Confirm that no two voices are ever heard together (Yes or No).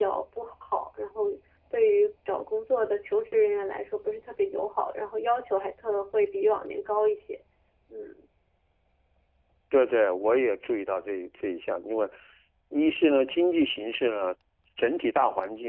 Yes